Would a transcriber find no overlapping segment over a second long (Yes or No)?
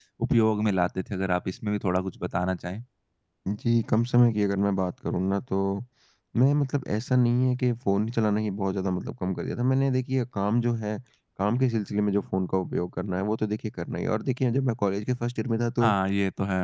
Yes